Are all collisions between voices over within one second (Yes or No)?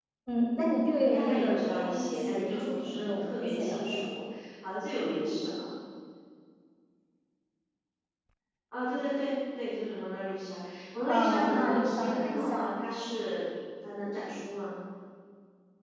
No